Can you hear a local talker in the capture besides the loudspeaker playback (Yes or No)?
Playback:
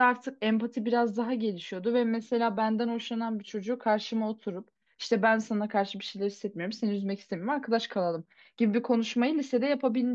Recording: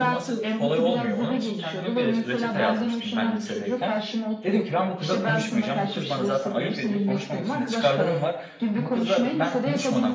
Yes